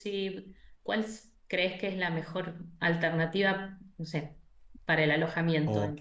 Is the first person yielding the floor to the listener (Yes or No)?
Yes